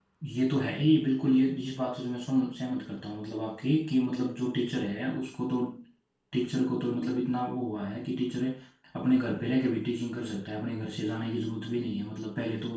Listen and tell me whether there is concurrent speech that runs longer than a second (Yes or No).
No